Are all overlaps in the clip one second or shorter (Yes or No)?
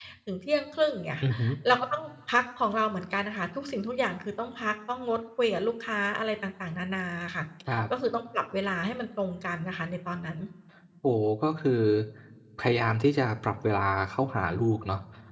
Yes